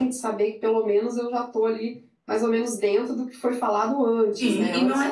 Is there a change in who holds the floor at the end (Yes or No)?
Yes